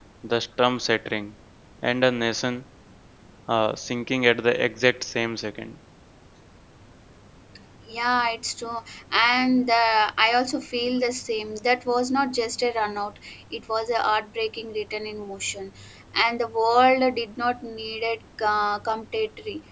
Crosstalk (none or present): none